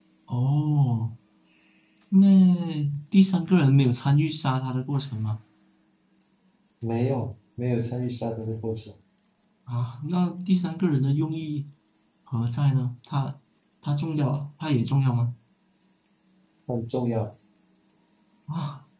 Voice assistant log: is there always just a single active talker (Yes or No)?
Yes